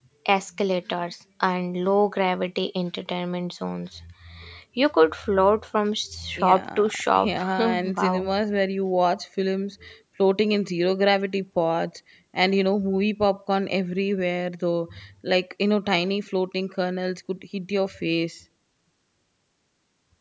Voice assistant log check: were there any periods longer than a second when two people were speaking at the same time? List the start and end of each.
6.4-8.3

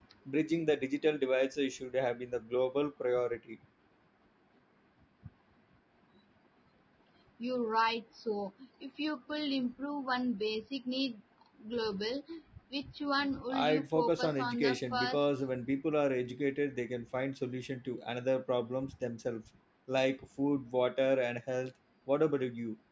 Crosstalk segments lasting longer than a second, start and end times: 13.6-15.3

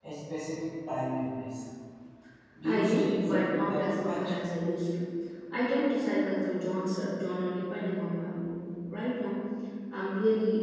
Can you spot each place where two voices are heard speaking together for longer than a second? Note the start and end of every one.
2.6-4.3

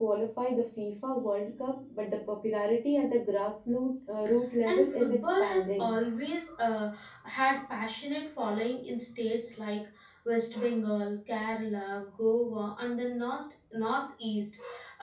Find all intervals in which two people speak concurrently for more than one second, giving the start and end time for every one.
4.7-5.9

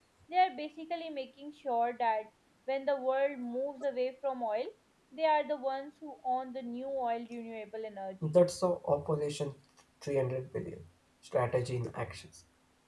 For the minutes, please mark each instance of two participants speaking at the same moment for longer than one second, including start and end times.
none

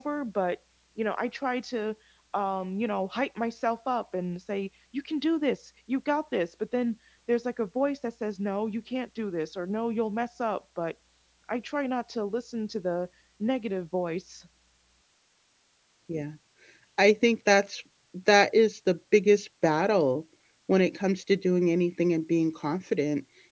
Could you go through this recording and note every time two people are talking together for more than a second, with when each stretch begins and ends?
none

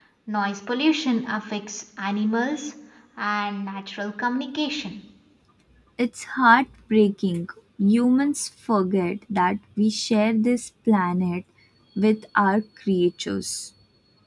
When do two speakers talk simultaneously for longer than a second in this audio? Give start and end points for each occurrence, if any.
none

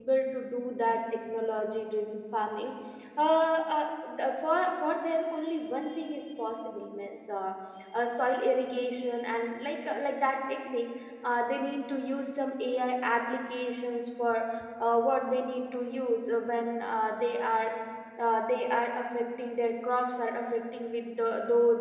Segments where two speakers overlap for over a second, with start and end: none

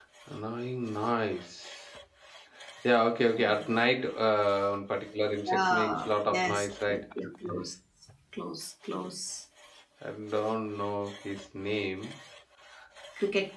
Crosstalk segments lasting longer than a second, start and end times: 5.5-7.0

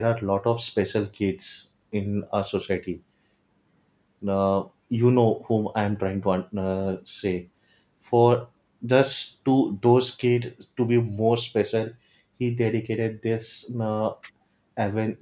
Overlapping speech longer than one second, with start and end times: none

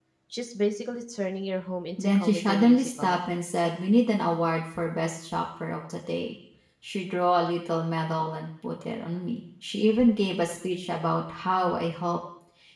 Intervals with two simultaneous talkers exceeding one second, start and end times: 2.0-3.2

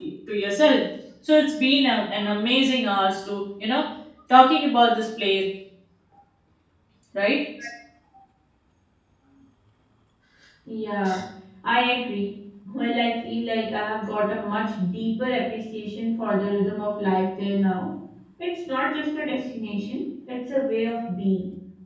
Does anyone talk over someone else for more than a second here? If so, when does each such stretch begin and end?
none

